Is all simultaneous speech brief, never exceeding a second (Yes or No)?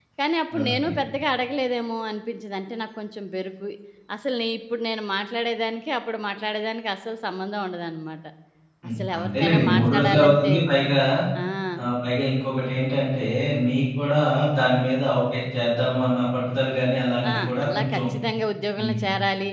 No